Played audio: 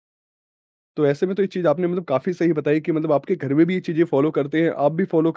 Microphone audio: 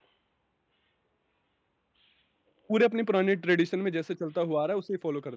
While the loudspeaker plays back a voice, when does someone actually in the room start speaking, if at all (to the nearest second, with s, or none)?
3 s